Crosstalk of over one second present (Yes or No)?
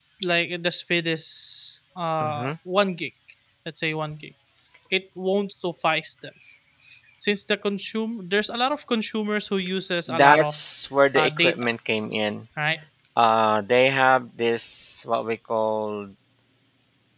No